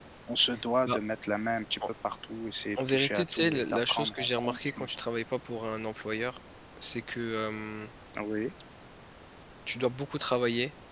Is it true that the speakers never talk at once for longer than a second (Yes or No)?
No